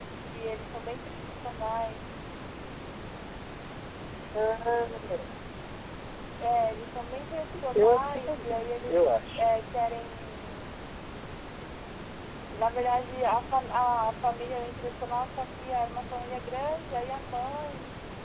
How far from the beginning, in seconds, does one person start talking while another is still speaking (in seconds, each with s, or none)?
7.7 s